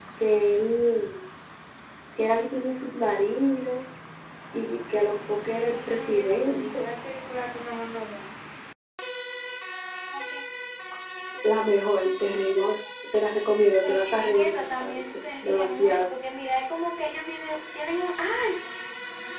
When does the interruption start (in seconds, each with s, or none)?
5.4 s